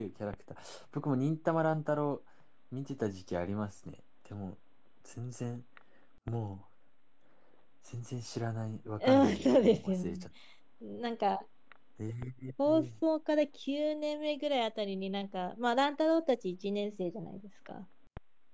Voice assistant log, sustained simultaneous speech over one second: present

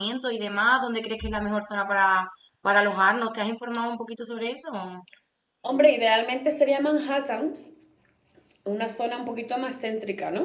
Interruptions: none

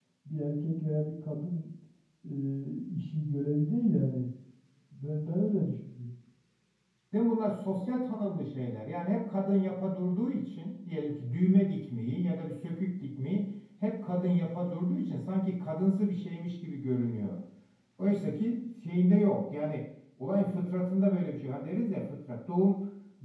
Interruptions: none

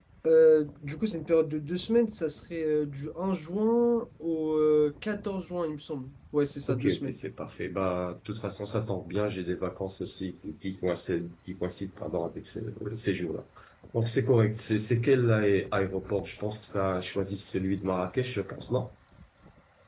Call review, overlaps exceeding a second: none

